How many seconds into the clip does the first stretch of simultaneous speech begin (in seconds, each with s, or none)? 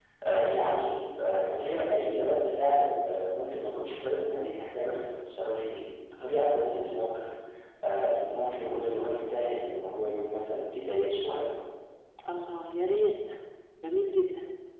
none